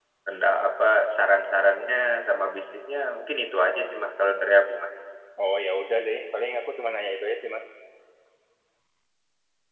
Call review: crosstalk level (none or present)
none